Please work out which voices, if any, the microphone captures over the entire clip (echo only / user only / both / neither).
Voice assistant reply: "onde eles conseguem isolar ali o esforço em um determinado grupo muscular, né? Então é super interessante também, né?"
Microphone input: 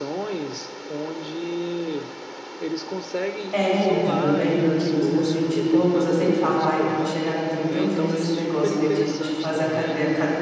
both